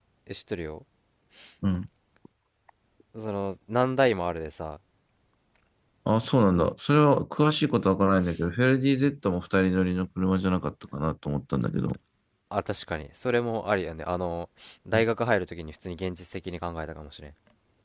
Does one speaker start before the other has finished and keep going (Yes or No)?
No